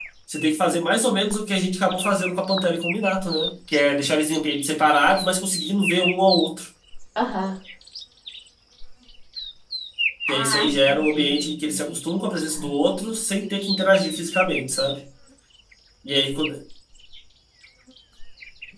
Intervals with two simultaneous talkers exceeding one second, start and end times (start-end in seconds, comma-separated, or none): 10.3-12.0